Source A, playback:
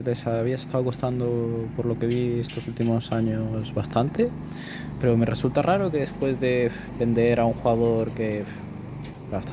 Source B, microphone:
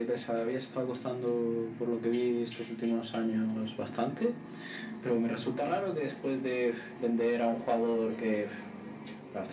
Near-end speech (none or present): none